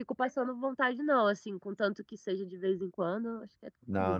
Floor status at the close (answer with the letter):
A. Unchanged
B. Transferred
B